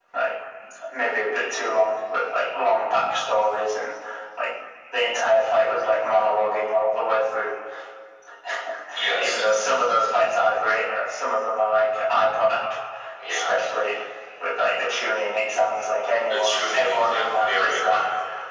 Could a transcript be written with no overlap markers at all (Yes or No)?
No